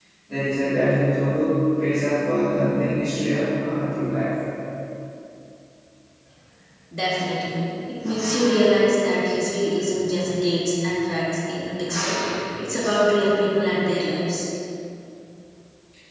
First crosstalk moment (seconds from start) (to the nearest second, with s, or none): none